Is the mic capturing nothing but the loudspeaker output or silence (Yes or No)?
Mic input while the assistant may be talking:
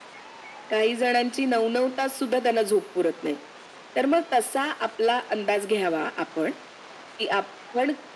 Yes